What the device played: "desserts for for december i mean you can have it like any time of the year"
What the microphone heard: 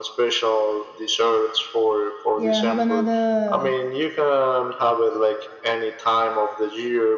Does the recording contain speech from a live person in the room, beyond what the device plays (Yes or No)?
Yes